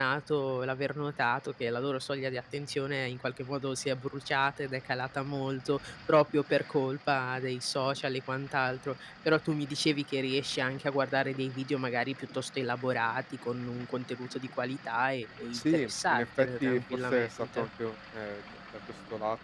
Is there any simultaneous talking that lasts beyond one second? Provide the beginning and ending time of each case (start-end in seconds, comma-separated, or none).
15.5-17.7